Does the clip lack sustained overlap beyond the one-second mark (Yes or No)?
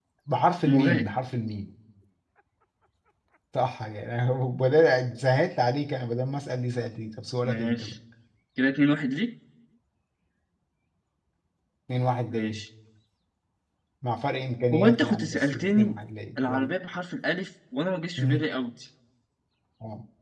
No